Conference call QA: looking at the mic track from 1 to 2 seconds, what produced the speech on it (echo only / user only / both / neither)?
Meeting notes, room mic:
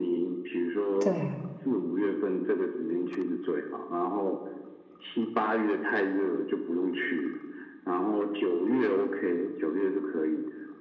both